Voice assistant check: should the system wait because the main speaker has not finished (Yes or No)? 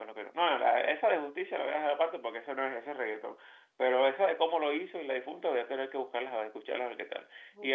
No